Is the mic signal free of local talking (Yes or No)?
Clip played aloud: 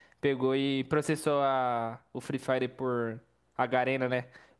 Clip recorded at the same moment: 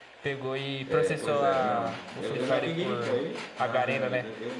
No